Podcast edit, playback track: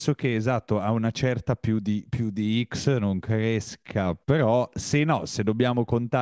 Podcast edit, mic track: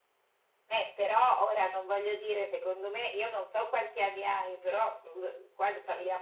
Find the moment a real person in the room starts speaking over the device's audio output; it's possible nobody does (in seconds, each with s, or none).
0.7 s